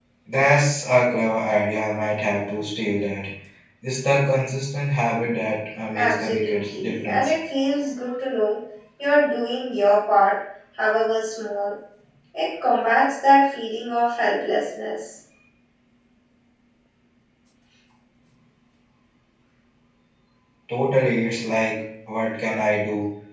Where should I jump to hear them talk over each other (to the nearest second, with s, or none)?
6 s